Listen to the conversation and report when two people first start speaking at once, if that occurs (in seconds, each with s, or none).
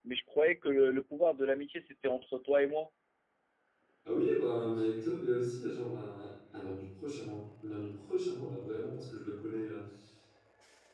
none